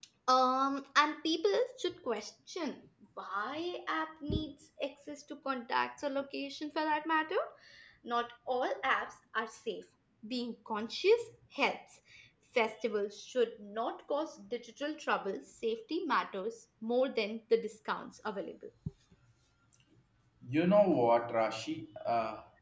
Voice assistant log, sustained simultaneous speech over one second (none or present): none